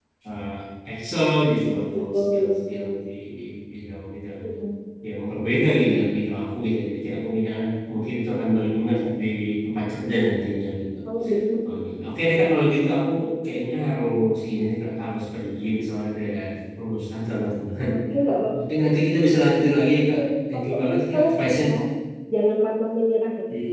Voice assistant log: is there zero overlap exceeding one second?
No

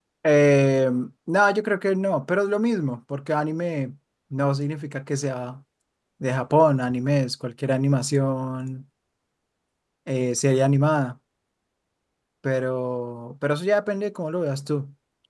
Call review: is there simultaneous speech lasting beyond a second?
No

